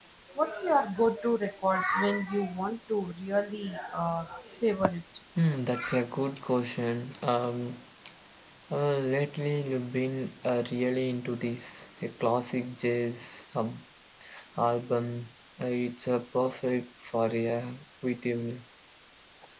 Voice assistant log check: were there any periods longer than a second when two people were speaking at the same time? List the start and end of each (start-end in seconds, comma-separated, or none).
none